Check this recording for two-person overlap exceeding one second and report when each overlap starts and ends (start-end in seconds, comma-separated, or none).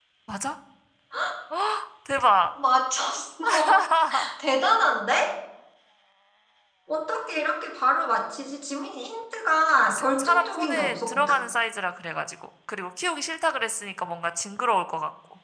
9.9-11.3